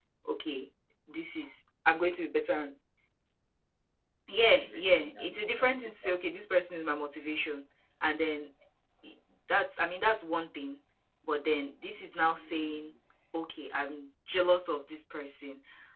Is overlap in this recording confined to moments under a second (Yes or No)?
No